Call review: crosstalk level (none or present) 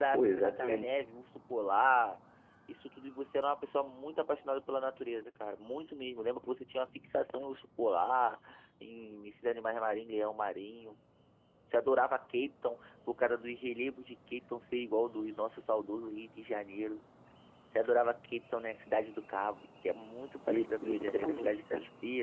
present